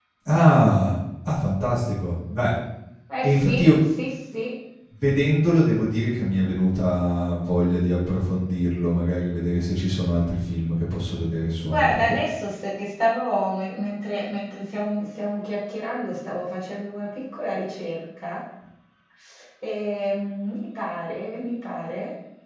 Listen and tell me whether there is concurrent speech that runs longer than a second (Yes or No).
No